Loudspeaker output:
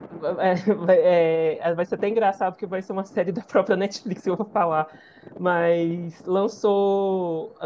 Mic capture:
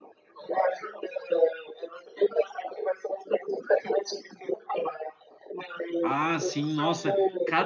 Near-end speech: present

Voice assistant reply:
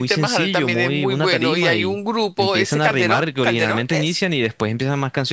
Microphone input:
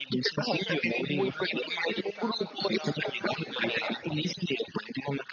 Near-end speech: present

